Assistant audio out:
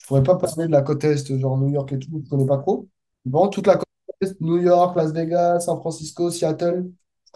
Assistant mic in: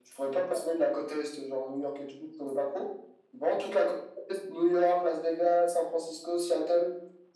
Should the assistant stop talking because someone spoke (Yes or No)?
No